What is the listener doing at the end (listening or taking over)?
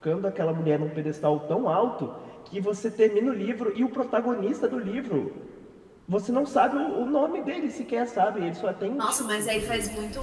taking over